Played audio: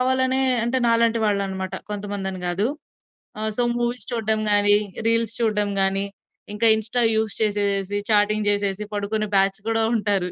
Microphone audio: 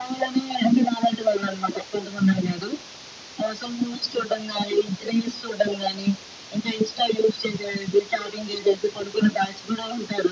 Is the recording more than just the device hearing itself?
No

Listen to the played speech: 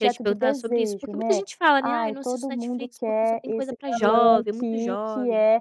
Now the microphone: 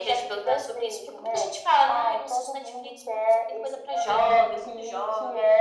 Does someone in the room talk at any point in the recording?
No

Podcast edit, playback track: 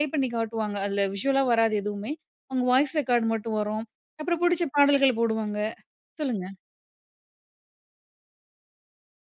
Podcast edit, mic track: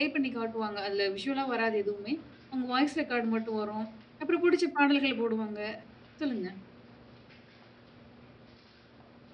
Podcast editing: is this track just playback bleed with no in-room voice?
Yes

